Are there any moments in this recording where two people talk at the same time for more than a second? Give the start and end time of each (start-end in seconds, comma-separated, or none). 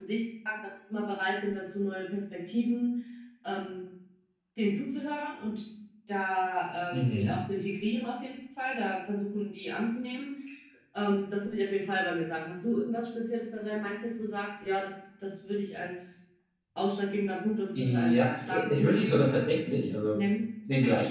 17.8-19.2